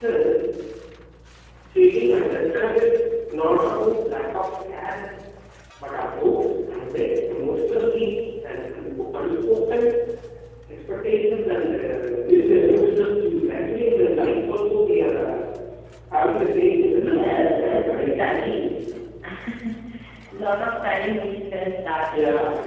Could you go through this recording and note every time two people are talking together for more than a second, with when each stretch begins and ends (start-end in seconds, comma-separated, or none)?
16.9-18.7